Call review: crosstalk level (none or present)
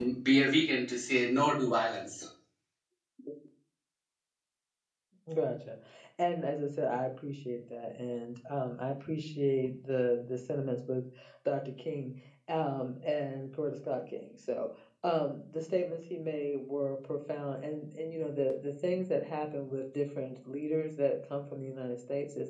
none